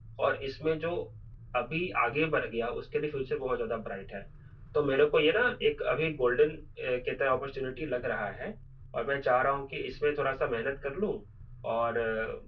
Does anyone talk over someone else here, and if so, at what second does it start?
none

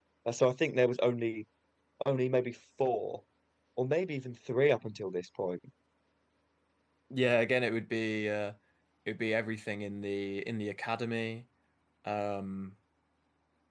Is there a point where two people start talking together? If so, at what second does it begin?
none

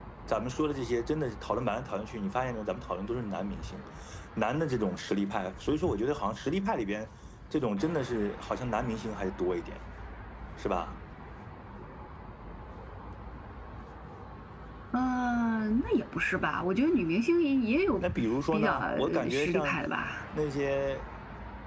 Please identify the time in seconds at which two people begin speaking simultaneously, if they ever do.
18.5 s

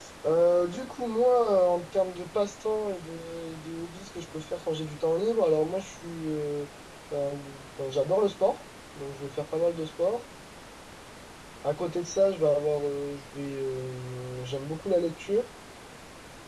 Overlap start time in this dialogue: none

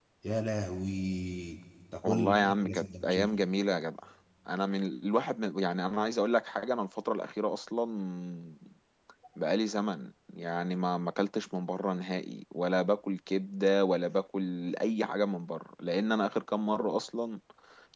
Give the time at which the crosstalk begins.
2.0 s

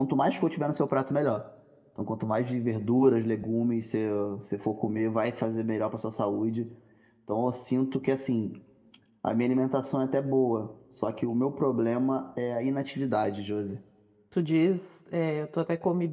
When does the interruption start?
none

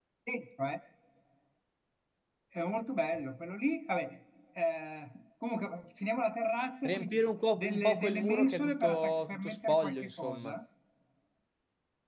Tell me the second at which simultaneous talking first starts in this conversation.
6.8 s

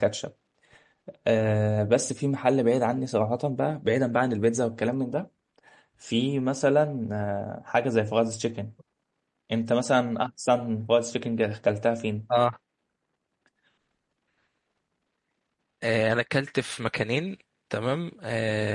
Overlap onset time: none

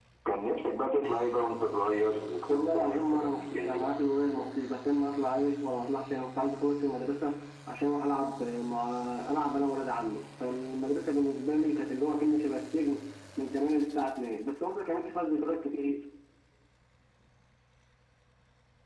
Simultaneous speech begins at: 2.5 s

